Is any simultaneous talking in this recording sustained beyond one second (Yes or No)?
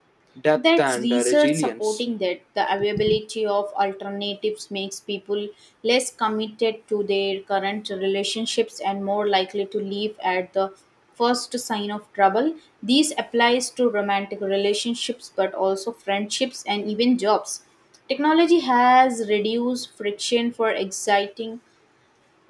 Yes